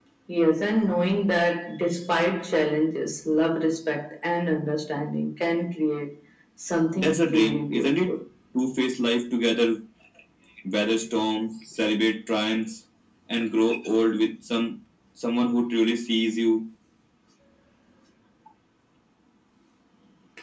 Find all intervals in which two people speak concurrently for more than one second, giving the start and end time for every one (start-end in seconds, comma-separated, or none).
7.0-8.2